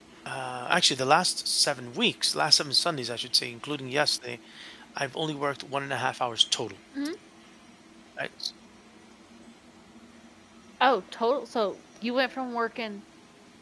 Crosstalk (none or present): none